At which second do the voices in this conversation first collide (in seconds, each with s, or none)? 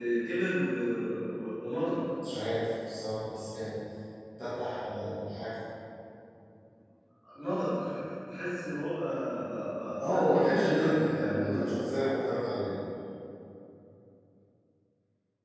10.0 s